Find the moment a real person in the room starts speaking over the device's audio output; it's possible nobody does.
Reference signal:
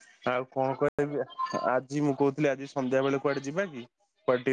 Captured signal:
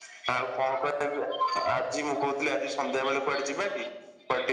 none

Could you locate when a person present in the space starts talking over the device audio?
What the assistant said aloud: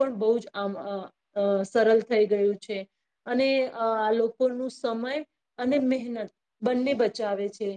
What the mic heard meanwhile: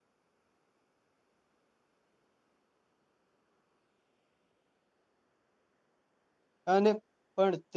6.7 s

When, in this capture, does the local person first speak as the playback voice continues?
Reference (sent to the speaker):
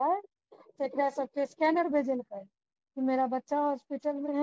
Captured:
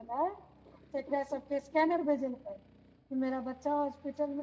none

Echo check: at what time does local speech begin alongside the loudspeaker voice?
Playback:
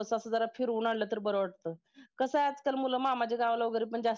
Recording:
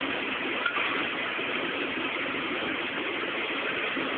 none

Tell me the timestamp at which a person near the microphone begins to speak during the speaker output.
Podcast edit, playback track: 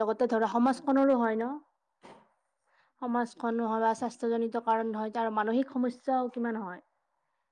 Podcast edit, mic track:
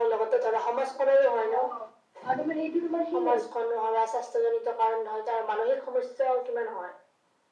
1.5 s

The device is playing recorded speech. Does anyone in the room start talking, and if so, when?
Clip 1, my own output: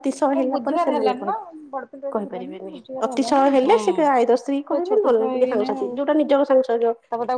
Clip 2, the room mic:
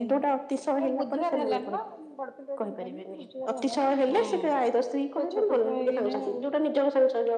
none

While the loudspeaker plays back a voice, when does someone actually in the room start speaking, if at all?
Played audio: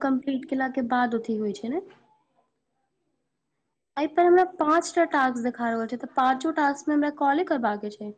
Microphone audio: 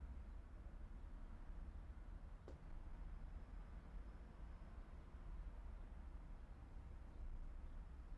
none

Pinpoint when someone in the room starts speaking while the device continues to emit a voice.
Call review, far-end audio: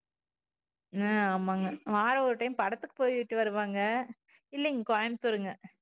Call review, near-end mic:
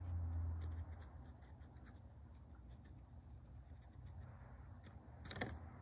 none

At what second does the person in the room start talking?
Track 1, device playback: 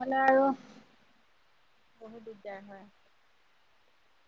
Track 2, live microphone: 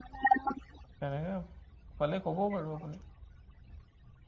1.0 s

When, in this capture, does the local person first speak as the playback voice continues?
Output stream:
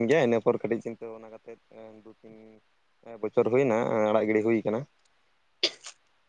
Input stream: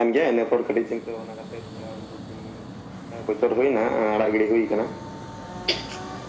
none

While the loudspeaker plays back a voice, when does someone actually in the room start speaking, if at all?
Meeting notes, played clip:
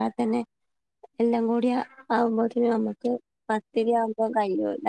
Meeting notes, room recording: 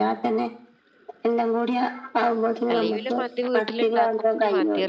2.7 s

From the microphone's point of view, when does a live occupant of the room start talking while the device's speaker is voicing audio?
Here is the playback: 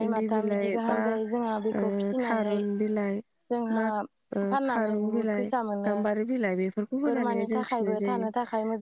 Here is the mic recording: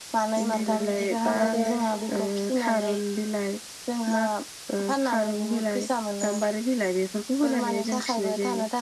0.6 s

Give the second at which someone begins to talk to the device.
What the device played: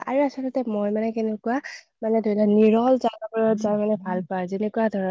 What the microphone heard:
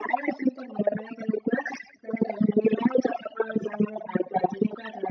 none

